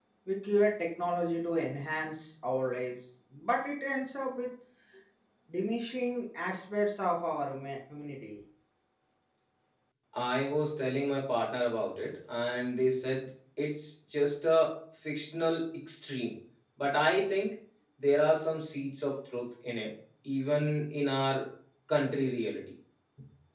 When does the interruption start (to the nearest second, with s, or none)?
none